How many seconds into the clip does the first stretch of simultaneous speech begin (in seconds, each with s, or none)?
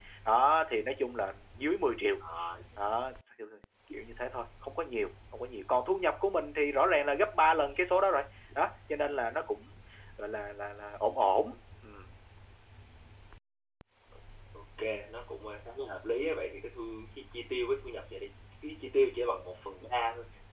none